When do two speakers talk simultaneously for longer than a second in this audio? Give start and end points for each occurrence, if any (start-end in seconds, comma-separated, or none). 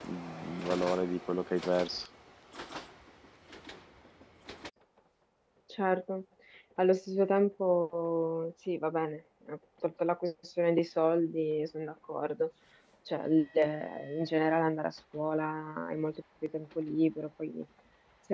none